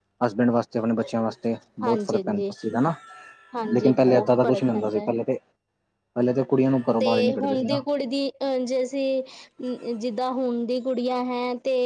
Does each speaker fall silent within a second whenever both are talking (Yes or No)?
No